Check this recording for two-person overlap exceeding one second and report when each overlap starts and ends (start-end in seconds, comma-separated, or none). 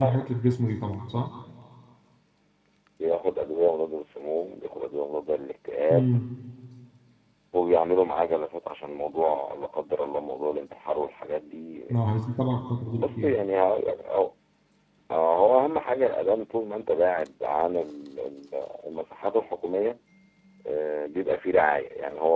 none